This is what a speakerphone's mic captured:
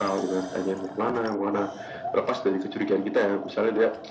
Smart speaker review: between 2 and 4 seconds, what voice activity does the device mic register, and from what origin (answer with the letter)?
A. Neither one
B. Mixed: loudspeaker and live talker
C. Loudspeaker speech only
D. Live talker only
C